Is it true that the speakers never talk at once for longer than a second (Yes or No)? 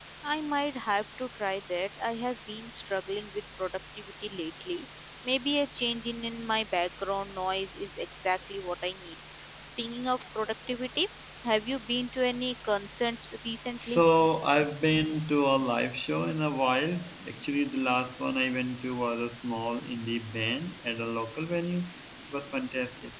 Yes